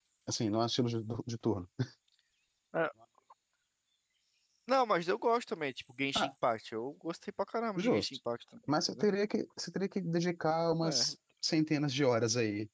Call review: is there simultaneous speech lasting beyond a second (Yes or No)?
No